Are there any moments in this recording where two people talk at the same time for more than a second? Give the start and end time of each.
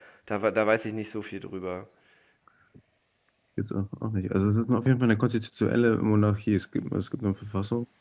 none

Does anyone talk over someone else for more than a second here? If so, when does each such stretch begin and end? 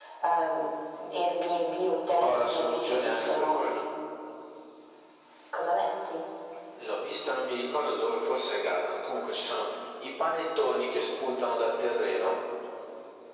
2.2-3.6

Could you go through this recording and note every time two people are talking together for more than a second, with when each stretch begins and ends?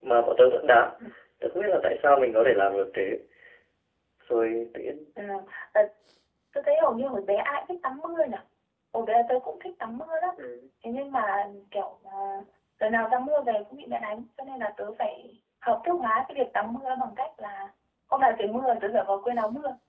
none

